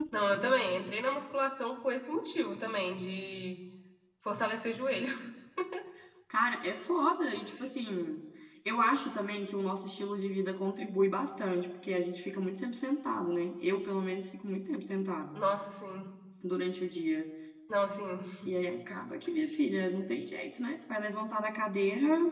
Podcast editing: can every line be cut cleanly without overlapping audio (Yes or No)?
Yes